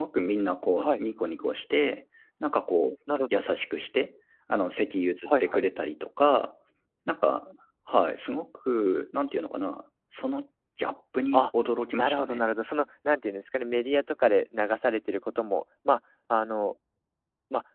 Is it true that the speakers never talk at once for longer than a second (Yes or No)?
Yes